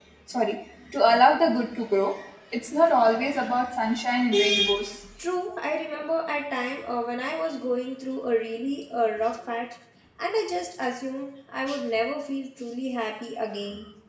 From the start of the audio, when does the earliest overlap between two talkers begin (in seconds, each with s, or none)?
none